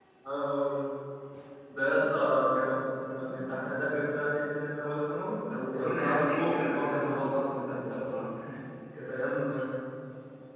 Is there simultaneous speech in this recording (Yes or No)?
Yes